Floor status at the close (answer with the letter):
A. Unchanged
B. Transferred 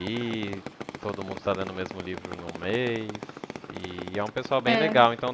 A